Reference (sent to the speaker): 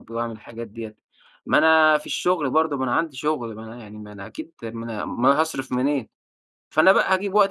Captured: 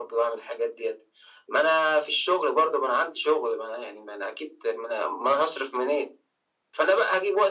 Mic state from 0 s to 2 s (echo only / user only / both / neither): echo only